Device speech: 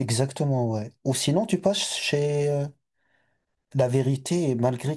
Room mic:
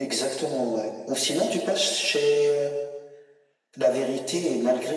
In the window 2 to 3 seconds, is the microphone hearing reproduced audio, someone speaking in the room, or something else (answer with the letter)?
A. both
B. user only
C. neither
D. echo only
D